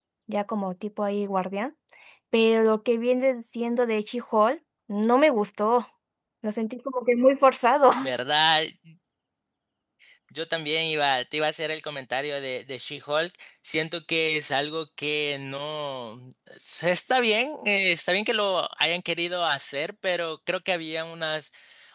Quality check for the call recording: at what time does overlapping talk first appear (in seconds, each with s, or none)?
none